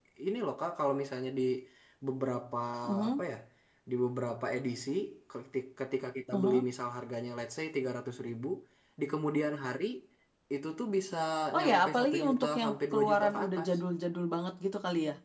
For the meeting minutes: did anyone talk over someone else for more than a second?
Yes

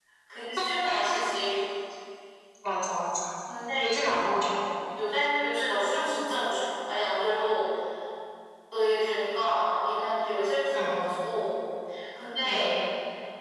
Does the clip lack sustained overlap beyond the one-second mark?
Yes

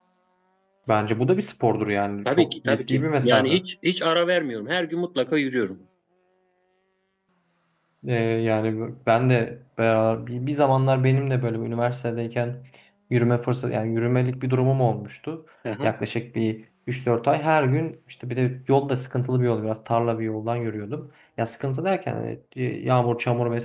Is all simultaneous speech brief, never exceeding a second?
No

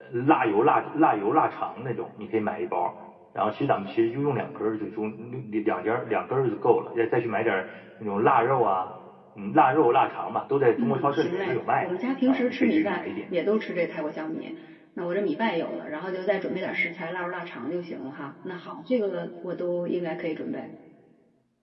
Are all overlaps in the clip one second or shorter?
No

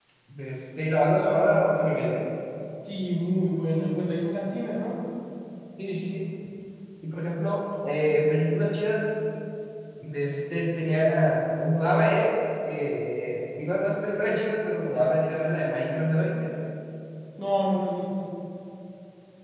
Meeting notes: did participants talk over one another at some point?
No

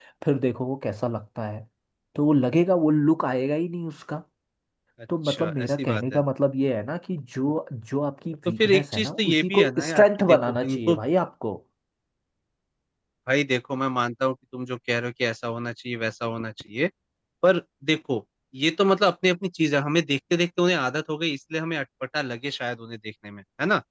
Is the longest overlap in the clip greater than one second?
Yes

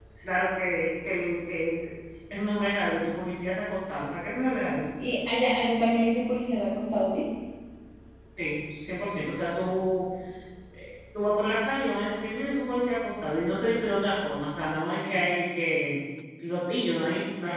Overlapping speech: No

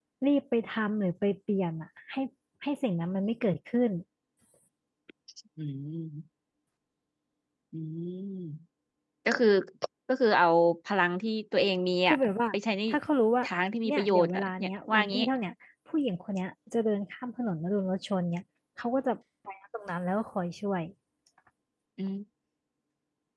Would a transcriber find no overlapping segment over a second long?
No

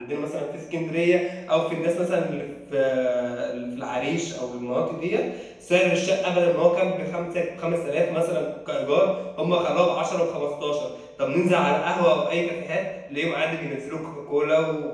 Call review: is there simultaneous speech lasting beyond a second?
No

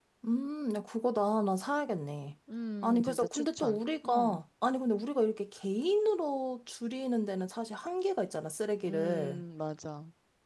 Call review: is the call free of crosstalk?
No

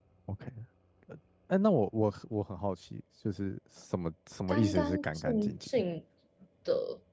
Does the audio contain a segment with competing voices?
Yes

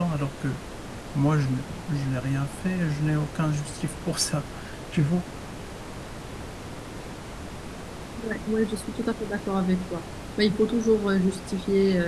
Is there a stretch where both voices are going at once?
No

